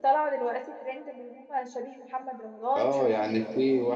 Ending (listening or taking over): taking over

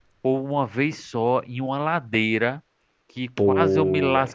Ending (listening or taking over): listening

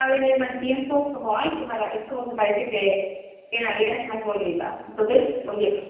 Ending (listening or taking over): listening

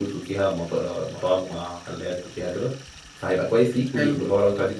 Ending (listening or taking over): listening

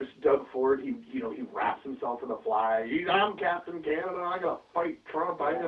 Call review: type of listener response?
taking over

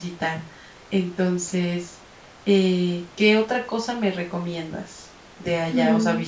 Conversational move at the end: listening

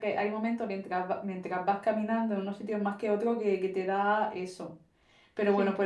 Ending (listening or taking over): listening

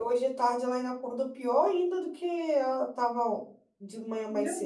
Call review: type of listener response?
taking over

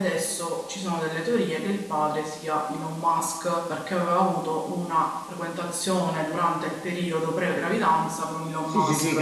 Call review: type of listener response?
taking over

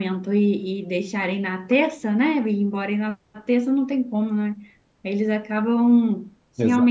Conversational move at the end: listening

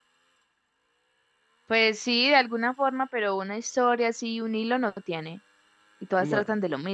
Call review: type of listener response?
listening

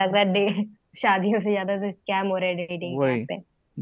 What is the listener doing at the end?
taking over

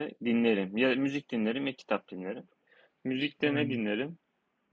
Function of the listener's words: listening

